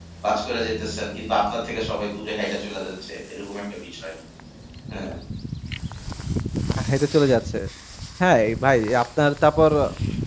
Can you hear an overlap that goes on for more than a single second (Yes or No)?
No